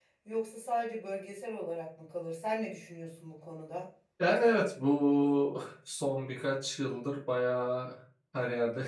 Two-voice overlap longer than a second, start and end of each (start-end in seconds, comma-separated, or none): none